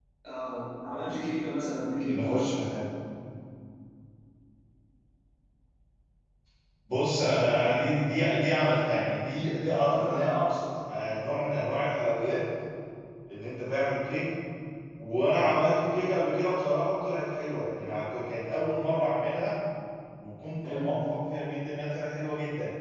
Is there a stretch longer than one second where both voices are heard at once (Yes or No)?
No